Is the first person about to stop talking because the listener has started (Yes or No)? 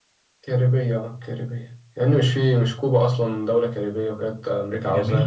Yes